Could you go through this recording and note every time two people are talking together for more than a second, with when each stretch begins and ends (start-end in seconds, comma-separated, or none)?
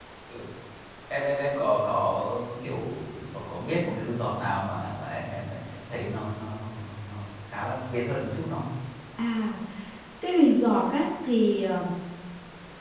none